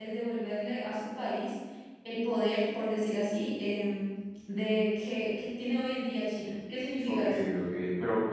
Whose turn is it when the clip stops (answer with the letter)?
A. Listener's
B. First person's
A